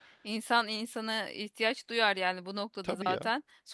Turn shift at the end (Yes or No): No